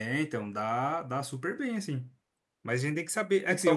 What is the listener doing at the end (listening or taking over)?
listening